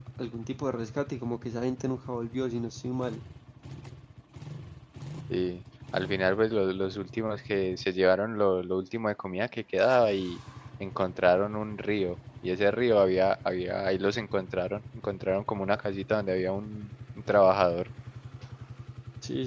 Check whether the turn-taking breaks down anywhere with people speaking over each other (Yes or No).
No